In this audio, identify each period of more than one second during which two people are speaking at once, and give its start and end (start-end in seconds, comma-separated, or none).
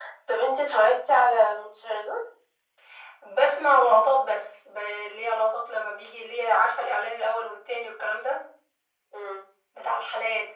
none